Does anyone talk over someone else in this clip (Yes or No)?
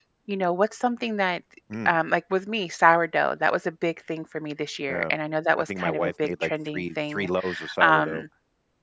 Yes